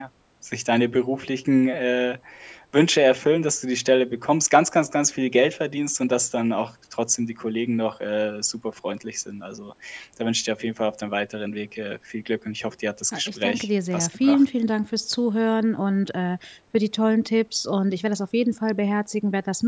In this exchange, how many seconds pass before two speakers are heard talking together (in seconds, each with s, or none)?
13.1 s